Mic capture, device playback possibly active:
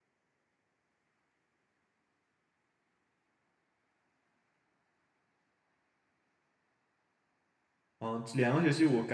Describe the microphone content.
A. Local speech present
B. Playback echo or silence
A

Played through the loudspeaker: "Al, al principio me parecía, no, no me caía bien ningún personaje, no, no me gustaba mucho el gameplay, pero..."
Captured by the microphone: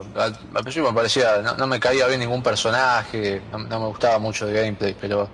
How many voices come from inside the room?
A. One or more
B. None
B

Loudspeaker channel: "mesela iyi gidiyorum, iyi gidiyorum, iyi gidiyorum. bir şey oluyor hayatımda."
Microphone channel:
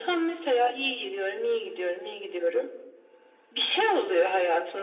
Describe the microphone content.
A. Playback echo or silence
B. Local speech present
A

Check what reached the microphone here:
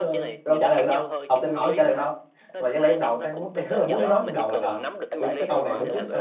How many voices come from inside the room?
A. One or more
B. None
A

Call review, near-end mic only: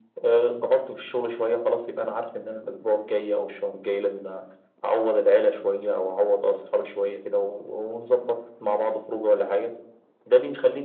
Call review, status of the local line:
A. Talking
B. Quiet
B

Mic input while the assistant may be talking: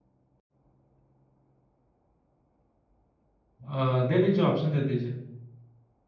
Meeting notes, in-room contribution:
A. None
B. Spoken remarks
B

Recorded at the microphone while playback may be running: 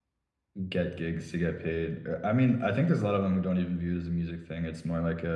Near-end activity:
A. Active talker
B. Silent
A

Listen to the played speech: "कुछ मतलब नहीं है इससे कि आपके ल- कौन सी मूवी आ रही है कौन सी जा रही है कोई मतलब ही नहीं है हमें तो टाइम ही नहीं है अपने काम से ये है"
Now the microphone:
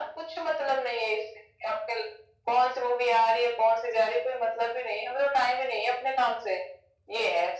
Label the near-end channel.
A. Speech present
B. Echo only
B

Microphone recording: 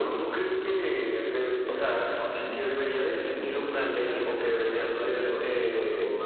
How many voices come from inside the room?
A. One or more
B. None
A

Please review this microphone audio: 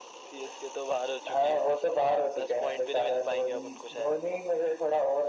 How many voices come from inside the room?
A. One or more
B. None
B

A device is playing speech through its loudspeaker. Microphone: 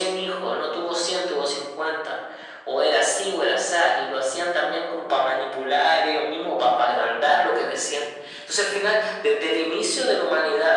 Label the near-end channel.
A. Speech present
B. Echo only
B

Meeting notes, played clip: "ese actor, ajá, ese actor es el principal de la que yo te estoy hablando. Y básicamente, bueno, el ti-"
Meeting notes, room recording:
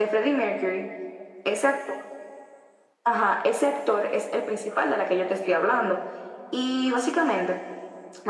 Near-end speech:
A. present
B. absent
B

